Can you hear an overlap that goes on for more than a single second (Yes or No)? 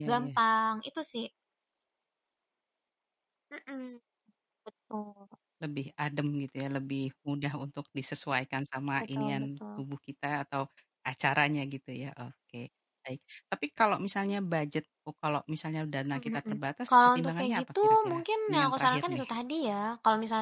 Yes